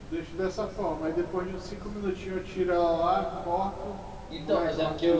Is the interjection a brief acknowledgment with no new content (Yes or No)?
No